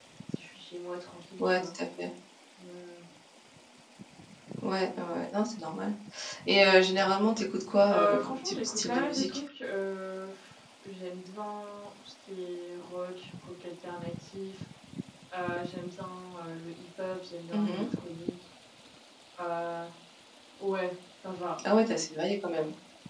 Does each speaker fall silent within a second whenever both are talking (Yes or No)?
No